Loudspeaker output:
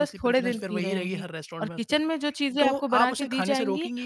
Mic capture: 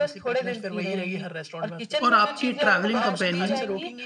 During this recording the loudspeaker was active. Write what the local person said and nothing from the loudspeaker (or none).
और आपके ट्रैवलिंग कंपेनियन